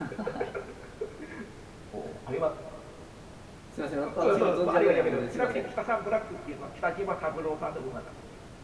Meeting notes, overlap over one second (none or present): present